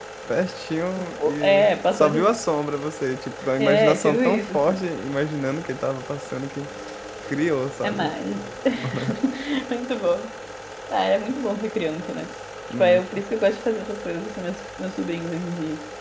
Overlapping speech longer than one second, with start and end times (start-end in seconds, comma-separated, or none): 1.0-2.4, 3.6-4.8